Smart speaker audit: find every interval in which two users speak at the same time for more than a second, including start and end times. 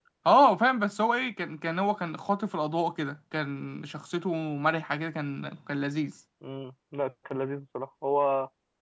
none

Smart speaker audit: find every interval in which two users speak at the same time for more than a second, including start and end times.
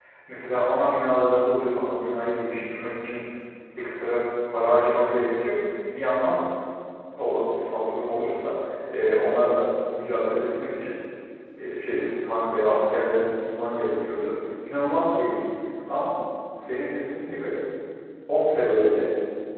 none

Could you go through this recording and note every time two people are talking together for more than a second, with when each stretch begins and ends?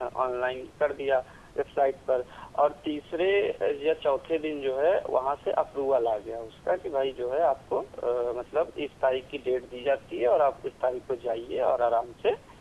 none

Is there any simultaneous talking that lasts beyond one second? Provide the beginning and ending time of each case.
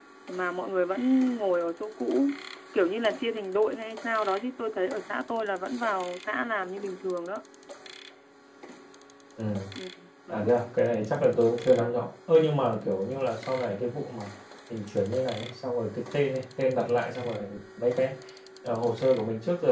none

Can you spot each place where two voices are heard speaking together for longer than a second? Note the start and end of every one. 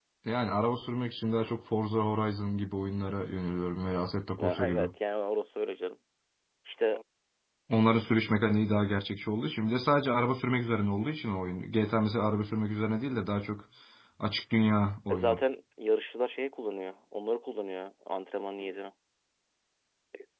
none

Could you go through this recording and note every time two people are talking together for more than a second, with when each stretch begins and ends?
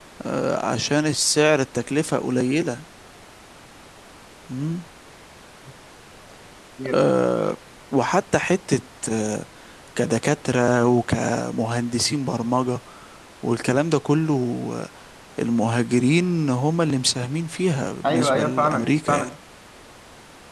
18.1-19.3

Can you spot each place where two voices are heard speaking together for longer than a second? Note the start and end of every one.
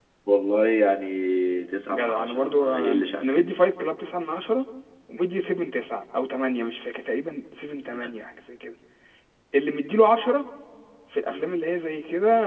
1.9-3.5

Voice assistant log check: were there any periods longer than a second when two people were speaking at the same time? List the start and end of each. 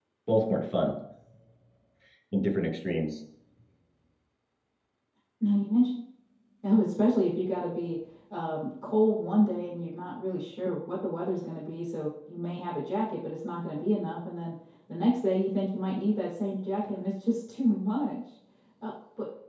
none

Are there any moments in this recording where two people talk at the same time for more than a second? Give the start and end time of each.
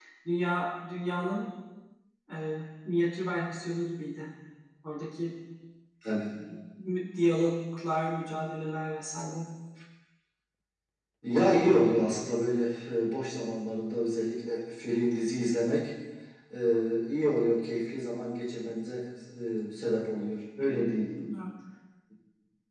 none

